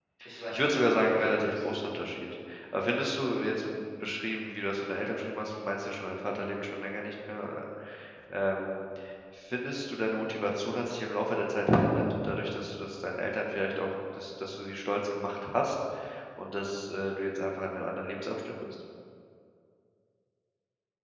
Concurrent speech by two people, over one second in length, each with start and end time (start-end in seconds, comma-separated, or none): 0.5-1.7